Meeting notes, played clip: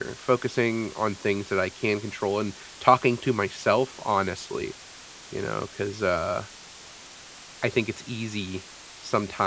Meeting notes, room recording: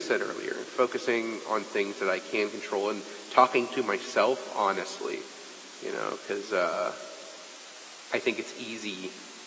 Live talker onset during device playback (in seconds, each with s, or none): none